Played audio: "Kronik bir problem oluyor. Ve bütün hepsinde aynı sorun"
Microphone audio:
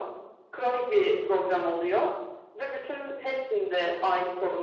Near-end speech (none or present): none